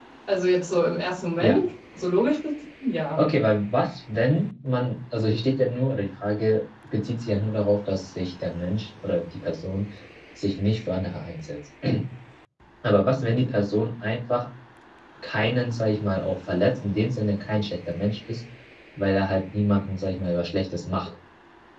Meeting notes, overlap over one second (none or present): none